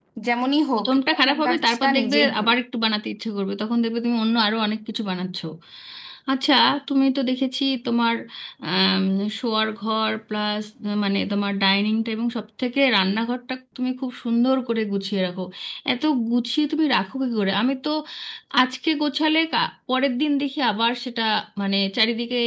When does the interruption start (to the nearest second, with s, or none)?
1 s